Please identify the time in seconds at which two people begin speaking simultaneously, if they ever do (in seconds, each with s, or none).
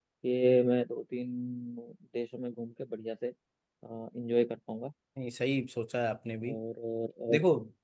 none